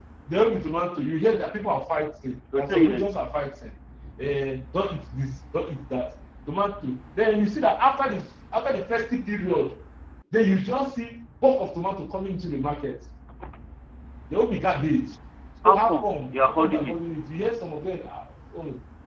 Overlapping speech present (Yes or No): Yes